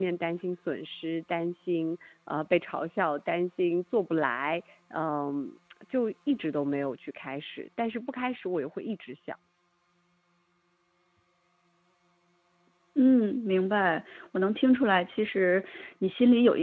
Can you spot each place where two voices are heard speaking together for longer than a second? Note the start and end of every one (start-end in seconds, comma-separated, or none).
none